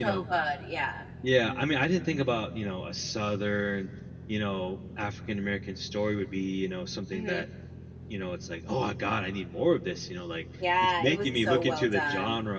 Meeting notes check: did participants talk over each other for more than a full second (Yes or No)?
Yes